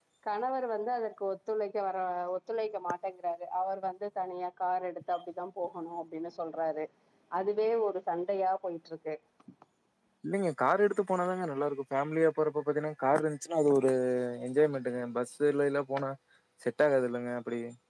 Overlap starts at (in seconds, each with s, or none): none